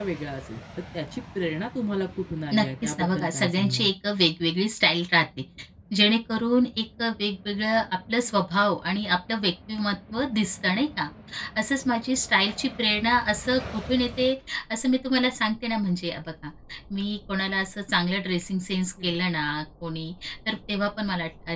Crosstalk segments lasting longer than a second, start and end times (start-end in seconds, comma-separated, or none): 2.5-3.9